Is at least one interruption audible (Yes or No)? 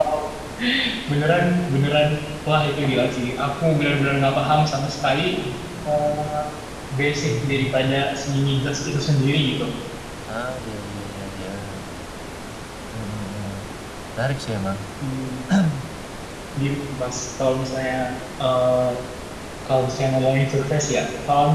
No